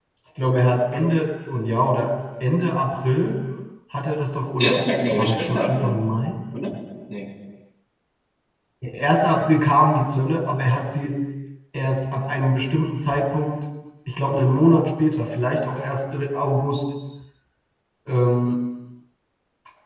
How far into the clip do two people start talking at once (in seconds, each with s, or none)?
4.6 s